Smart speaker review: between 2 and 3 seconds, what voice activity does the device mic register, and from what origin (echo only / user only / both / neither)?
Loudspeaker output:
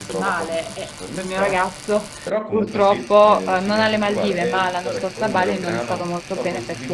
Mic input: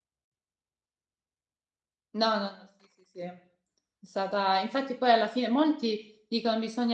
user only